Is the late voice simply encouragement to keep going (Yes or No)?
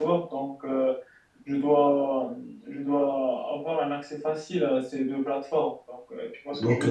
No